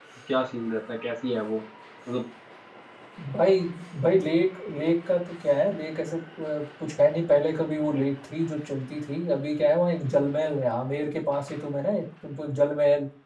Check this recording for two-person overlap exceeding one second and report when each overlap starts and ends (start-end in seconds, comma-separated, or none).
none